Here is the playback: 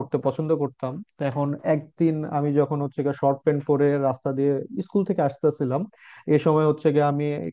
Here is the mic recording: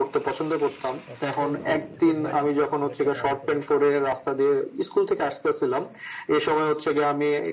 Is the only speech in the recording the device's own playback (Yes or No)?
No